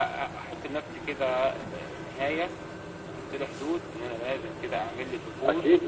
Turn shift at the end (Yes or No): Yes